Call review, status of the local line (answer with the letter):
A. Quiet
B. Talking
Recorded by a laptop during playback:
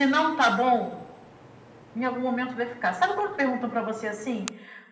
A